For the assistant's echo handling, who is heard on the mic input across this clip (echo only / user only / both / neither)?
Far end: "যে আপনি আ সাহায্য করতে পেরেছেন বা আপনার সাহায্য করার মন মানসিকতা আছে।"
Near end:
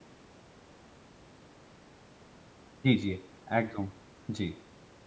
user only